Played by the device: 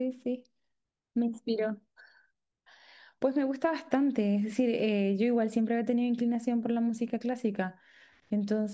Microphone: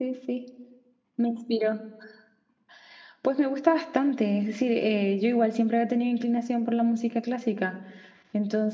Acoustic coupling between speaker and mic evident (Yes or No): Yes